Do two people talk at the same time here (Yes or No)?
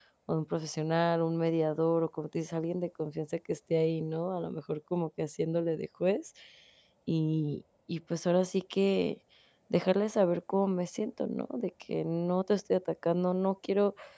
No